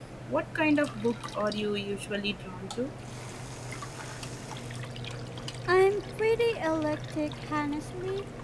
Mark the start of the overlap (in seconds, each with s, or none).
none